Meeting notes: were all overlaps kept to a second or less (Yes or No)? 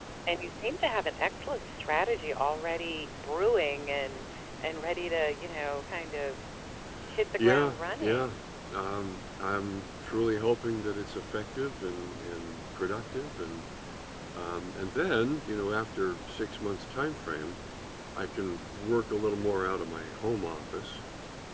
No